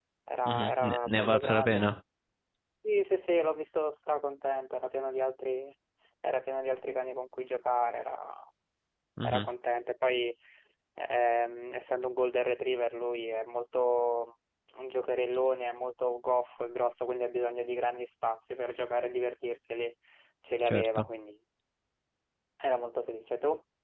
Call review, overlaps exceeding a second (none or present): present